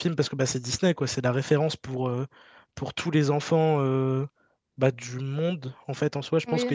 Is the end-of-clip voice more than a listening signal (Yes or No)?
Yes